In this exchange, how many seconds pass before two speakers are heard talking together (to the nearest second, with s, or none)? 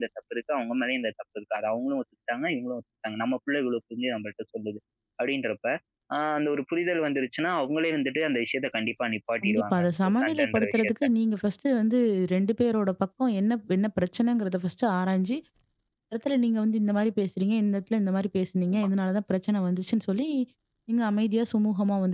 9 s